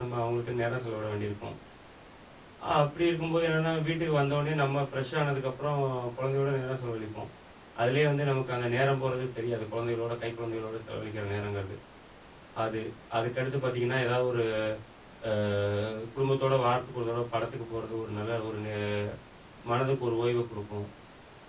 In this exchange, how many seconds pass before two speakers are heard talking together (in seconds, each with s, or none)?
none